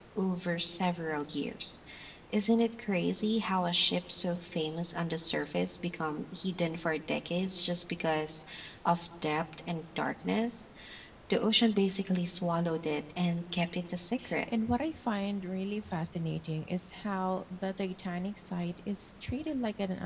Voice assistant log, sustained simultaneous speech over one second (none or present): none